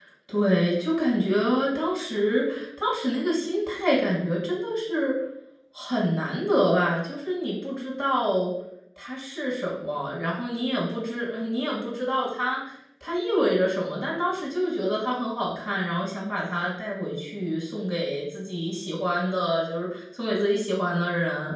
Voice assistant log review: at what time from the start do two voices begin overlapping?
none

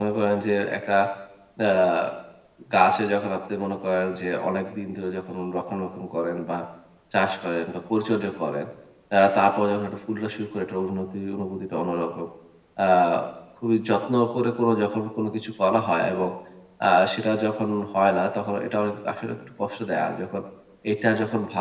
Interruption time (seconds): none

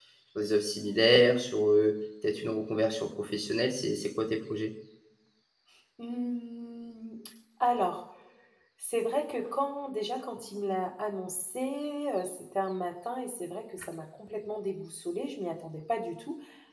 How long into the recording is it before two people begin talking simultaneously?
none

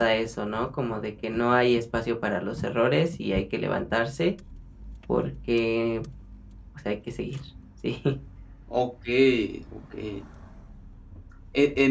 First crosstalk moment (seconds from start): none

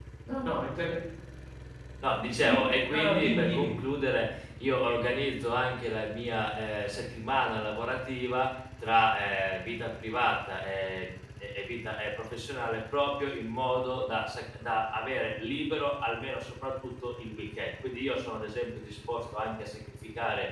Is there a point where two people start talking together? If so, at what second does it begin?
2.4 s

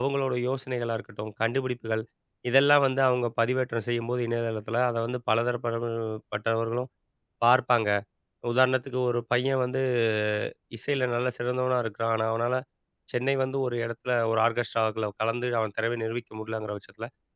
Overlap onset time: none

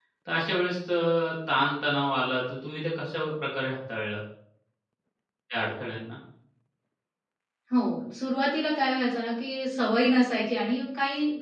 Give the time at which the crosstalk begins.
none

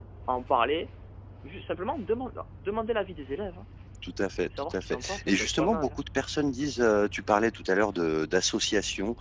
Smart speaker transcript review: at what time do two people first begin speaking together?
4.6 s

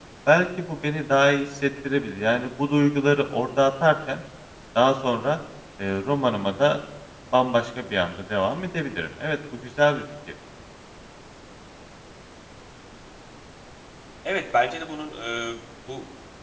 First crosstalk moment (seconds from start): none

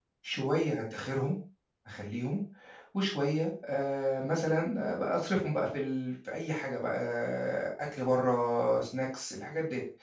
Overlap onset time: none

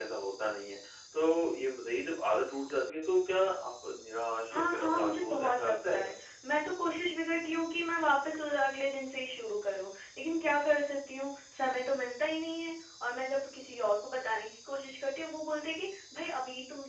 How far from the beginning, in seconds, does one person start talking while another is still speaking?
4.5 s

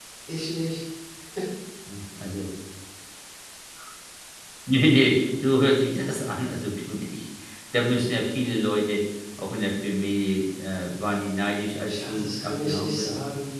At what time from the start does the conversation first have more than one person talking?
11.9 s

